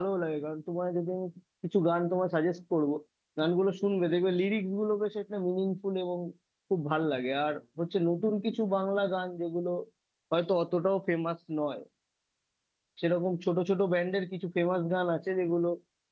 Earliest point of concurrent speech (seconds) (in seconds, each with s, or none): none